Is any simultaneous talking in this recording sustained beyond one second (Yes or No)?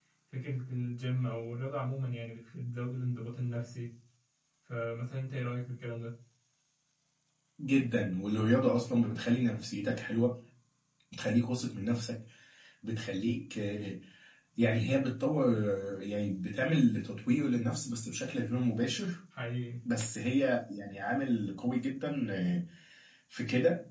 No